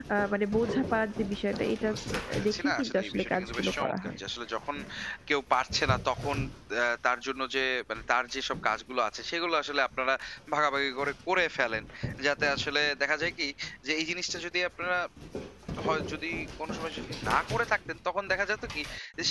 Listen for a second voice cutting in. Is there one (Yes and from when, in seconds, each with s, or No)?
Yes, from 2.5 s